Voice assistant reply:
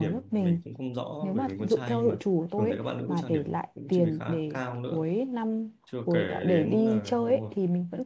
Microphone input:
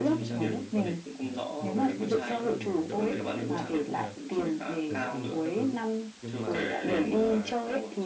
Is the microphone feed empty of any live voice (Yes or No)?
No